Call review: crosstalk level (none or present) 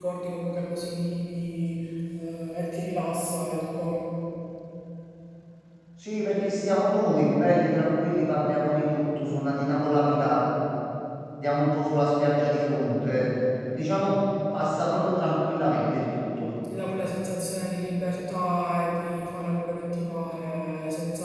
none